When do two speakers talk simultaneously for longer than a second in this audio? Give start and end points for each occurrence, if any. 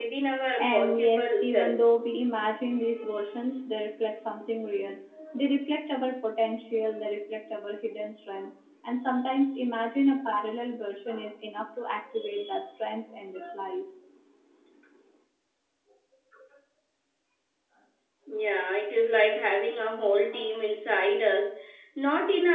0.6-1.9

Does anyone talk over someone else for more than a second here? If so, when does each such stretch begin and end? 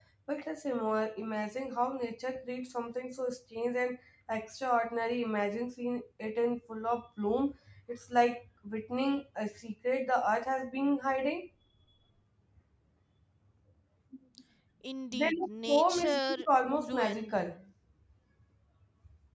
15.1-17.6

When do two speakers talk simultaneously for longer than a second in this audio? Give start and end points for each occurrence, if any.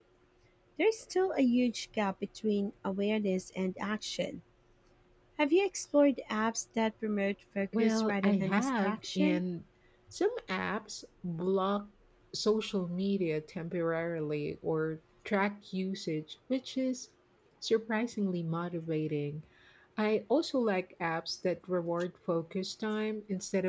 7.8-9.4

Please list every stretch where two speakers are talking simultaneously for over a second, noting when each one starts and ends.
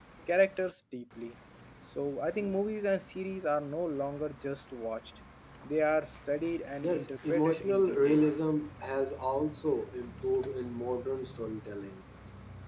6.8-8.2

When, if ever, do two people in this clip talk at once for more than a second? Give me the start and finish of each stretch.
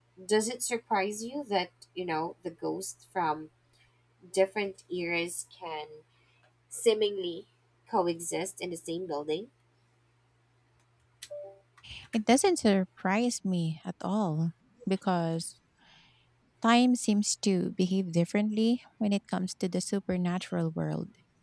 none

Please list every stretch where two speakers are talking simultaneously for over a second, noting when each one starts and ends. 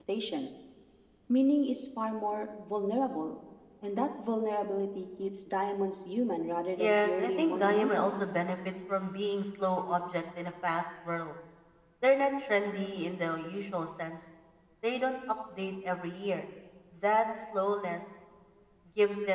6.8-8.1

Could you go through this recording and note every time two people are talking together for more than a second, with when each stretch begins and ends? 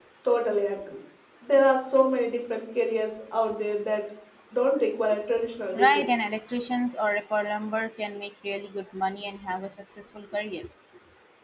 none

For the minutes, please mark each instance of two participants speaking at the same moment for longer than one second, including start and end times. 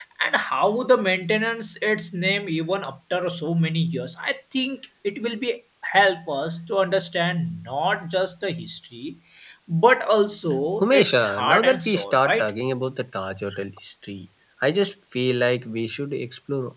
10.8-12.5

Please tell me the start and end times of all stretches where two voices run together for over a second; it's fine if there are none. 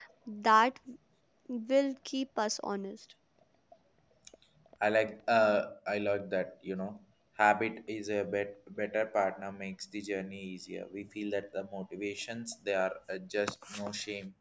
none

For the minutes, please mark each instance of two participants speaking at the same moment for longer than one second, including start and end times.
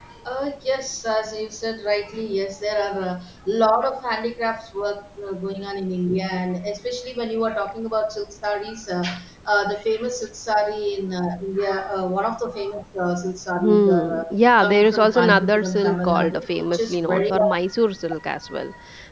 13.6-17.3

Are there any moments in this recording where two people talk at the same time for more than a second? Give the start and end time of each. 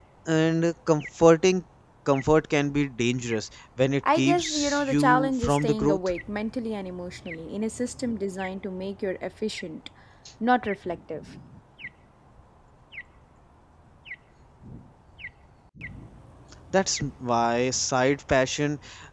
4.1-6.1

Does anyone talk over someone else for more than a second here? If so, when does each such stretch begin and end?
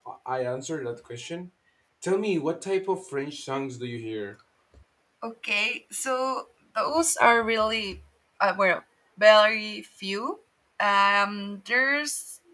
none

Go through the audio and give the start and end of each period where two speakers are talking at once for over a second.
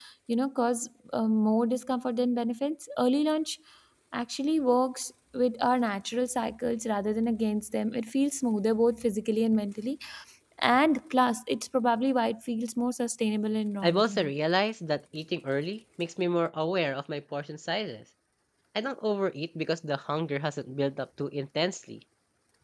none

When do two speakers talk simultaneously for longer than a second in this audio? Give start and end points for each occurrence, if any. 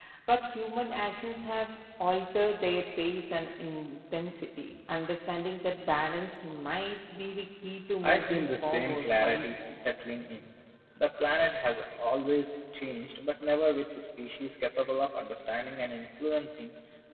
8.0-9.8

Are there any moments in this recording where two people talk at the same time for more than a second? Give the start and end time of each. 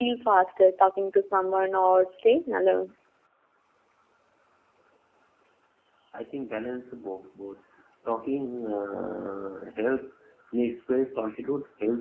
none

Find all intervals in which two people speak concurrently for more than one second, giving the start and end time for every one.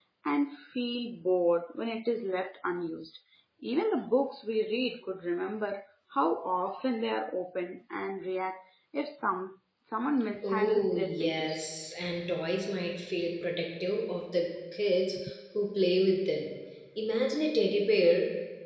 10.4-11.7

